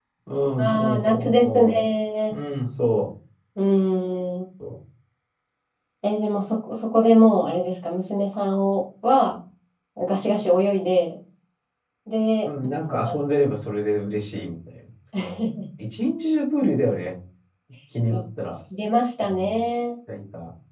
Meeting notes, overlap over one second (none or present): present